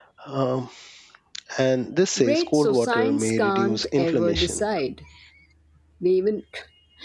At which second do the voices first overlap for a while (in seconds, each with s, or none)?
2.2 s